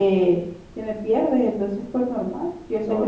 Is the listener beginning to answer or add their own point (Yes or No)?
No